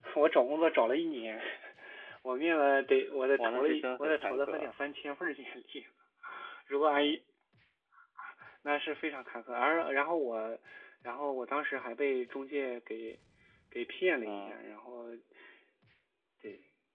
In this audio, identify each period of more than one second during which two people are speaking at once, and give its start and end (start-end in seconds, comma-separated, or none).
3.4-4.7